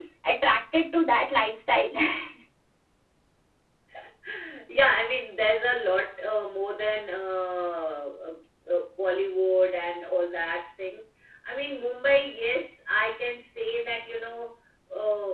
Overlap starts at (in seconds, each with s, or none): none